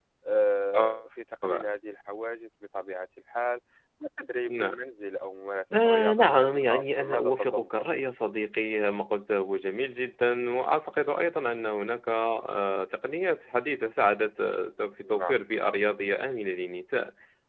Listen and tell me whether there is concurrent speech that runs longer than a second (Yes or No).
Yes